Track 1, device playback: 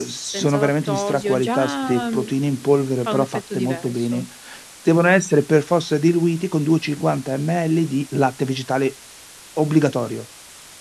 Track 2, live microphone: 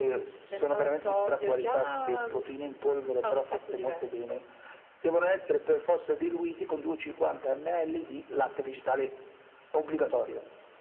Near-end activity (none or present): none